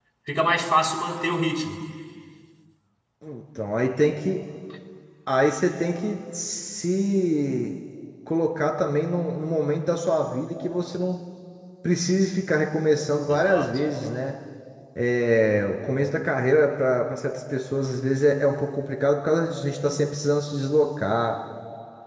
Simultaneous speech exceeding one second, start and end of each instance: none

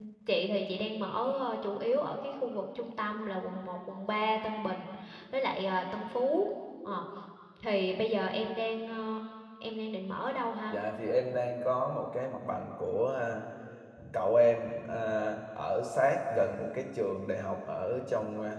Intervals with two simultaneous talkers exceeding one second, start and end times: none

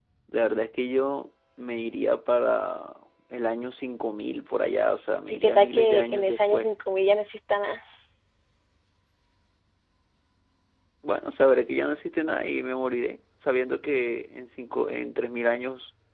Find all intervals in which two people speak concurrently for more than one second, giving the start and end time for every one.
5.3-6.7

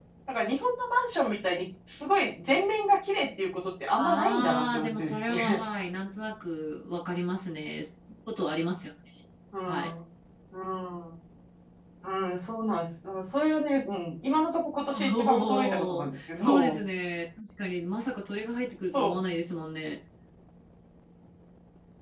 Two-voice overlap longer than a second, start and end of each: 4.0-5.6, 15.1-16.8

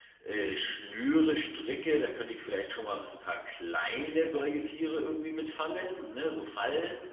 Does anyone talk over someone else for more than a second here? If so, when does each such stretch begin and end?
none

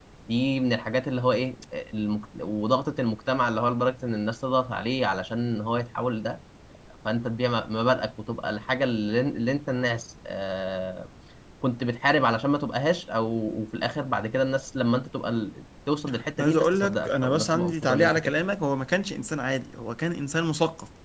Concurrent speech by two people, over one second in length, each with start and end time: 16.4-18.3

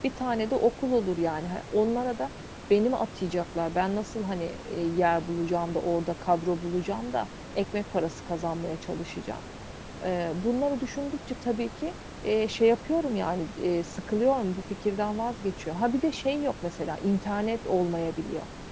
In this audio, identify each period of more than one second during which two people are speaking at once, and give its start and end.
none

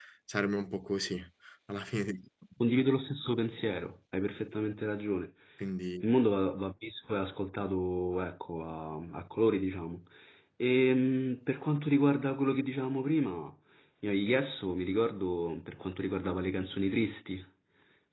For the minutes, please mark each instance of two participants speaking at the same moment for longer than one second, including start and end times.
none

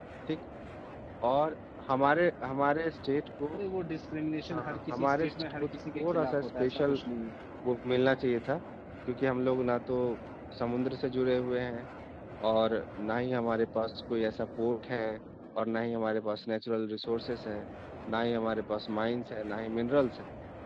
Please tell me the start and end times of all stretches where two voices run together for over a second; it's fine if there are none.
4.5-7.0

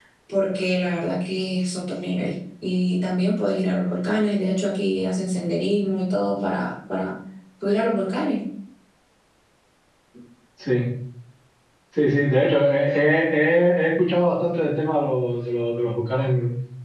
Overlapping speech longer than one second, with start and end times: none

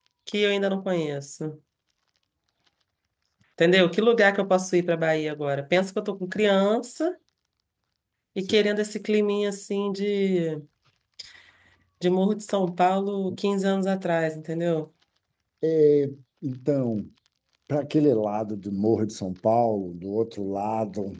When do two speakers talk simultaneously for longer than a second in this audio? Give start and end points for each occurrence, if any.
none

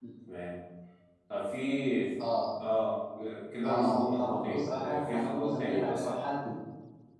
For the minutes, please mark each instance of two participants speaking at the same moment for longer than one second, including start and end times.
3.6-6.2

